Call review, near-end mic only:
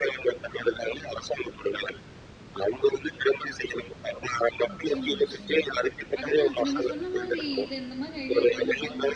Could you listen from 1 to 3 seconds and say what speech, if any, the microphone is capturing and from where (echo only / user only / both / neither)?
echo only